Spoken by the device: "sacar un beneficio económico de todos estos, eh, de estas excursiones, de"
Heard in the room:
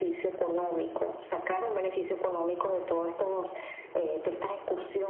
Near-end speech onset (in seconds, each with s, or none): none